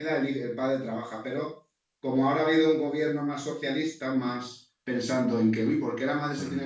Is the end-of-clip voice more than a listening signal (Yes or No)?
No